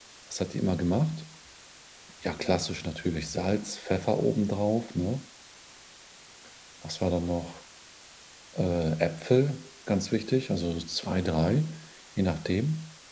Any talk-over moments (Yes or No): No